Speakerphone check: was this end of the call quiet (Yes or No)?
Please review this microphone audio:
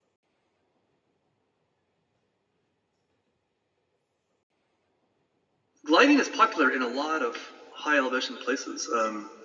No